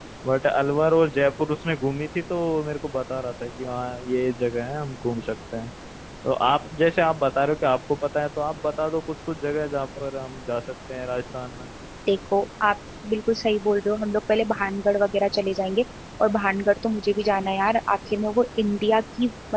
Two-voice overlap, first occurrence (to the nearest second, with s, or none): none